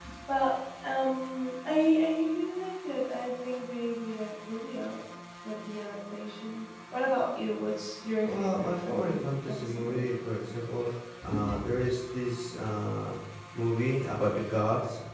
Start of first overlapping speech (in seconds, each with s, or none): 8.2 s